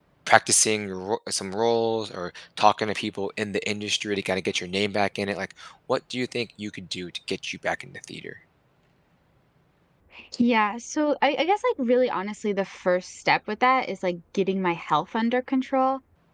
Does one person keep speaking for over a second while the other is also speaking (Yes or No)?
No